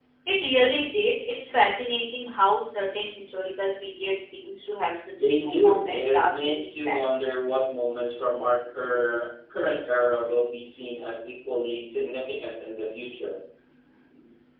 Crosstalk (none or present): present